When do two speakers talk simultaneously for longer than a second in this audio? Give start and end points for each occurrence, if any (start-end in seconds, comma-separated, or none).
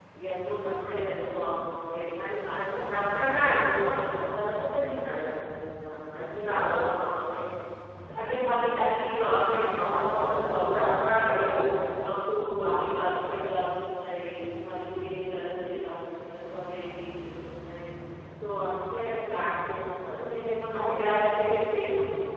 2.5-4.2, 9.6-11.4